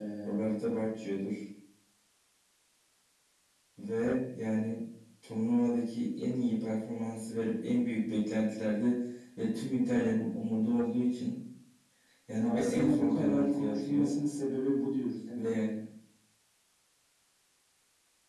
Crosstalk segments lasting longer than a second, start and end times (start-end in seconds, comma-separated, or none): 12.4-14.1